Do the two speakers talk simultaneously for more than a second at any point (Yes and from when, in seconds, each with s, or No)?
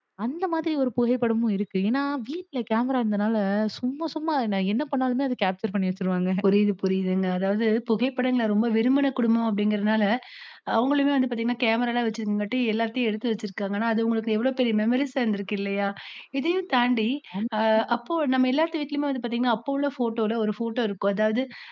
No